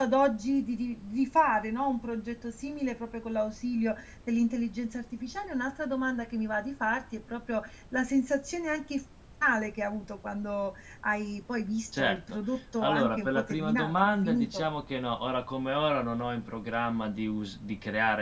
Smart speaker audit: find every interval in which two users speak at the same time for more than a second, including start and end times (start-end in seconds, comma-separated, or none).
12.8-14.7